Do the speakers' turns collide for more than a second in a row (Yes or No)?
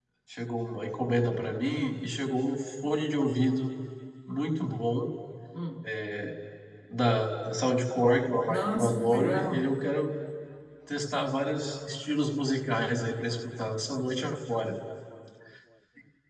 Yes